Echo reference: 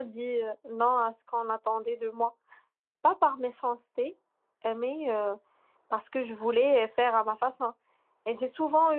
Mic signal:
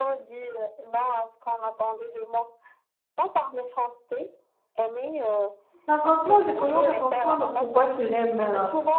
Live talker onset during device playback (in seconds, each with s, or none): 5.9 s